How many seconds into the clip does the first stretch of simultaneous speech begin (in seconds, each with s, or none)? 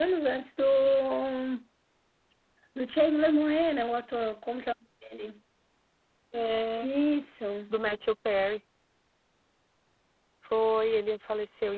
none